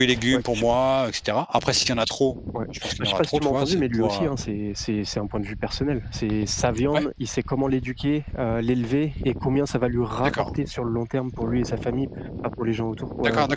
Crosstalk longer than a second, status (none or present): present